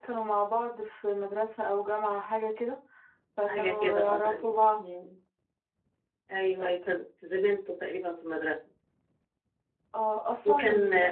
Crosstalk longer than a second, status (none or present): present